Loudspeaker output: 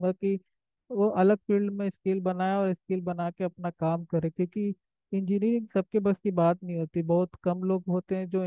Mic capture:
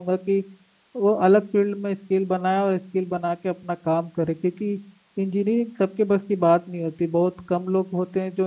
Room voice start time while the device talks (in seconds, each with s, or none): none